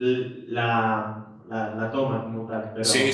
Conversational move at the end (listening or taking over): taking over